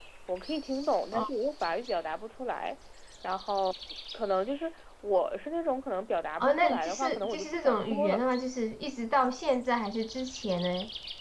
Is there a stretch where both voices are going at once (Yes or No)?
Yes